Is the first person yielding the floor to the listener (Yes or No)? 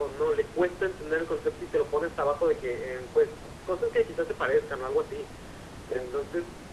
No